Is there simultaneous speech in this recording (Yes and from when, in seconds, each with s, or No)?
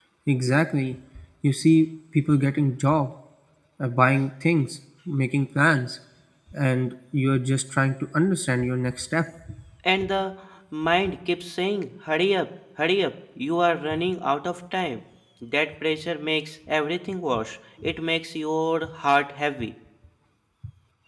No